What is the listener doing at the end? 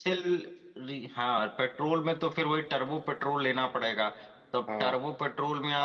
listening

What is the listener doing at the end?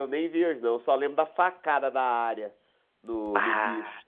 listening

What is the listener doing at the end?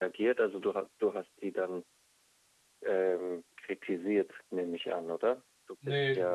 taking over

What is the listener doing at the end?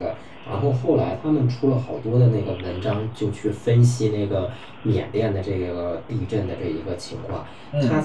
listening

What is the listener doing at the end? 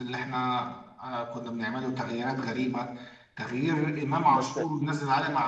listening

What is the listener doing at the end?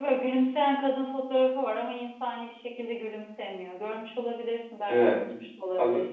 taking over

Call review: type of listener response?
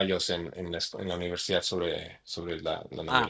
taking over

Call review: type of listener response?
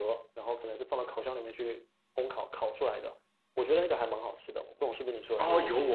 taking over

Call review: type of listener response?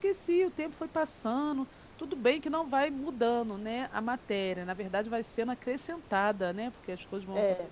taking over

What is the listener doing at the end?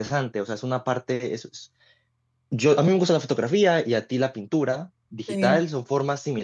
listening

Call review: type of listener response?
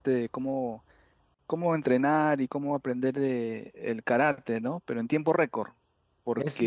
taking over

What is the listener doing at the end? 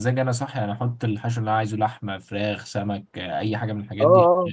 taking over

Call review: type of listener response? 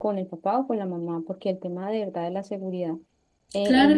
taking over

